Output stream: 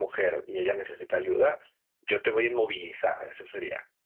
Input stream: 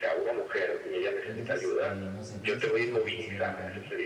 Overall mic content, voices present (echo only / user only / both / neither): both